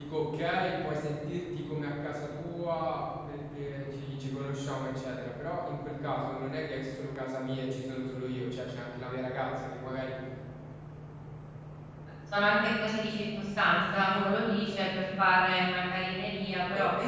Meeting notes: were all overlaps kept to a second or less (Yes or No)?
Yes